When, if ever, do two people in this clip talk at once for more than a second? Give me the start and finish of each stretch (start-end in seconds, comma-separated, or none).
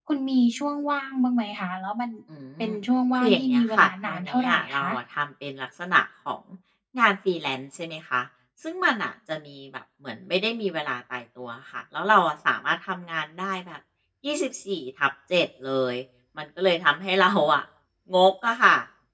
3.1-4.9